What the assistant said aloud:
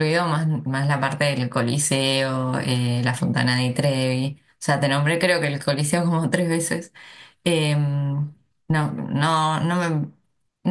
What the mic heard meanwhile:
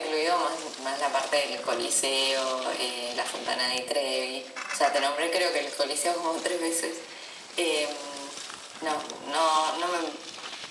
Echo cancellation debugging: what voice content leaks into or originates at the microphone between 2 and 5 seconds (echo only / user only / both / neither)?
echo only